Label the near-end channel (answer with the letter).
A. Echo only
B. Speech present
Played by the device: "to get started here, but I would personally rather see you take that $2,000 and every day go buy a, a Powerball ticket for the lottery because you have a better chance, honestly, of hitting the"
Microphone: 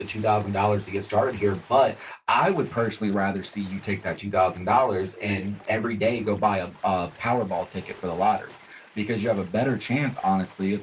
B